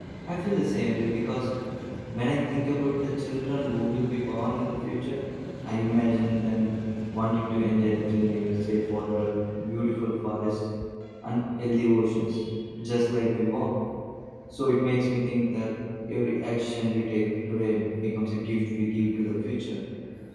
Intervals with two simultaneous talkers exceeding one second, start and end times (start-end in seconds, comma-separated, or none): none